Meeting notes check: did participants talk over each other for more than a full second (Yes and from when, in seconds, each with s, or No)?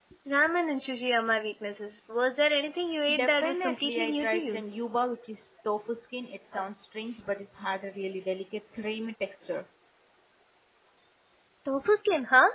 Yes, from 3.1 s